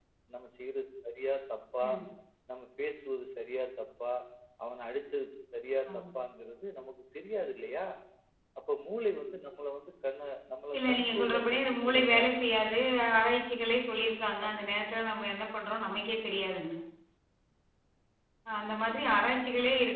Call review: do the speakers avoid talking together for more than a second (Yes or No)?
No